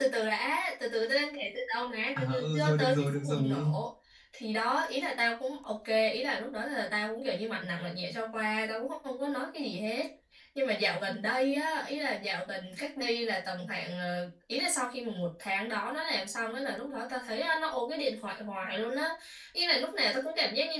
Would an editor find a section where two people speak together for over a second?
Yes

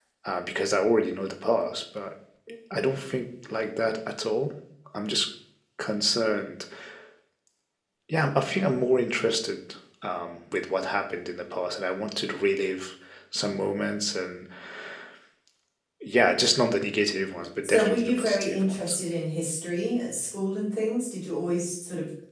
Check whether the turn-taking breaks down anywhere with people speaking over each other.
Yes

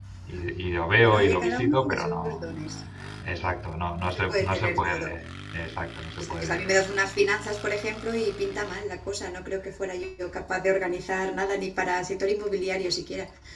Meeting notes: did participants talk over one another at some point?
Yes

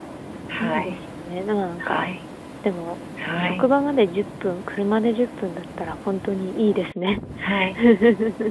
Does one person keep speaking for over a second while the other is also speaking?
No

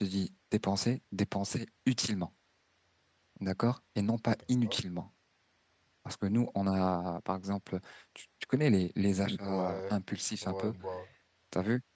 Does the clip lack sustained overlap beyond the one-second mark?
Yes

